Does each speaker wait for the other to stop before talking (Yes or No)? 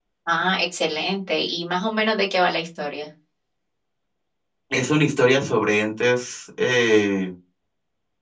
Yes